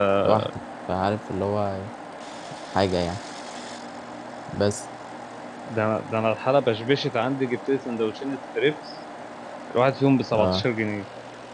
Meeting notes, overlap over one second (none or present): none